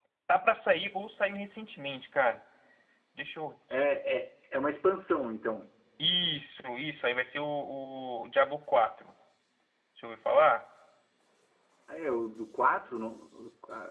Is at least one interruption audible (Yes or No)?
No